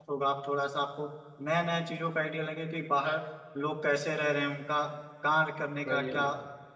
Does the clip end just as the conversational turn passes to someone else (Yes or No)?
No